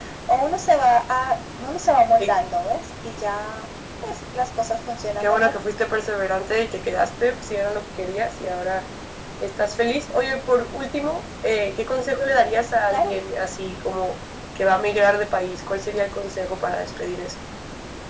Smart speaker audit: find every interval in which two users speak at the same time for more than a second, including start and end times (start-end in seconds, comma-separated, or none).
none